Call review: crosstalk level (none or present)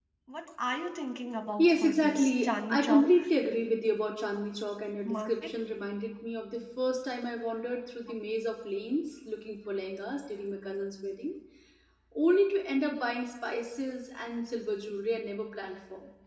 present